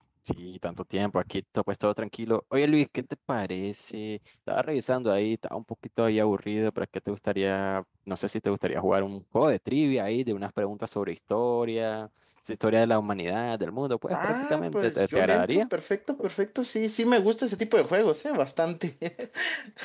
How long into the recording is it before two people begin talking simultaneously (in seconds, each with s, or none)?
14.1 s